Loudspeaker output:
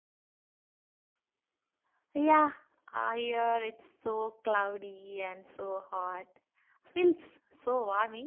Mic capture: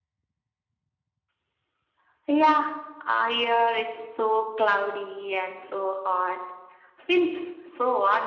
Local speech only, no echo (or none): none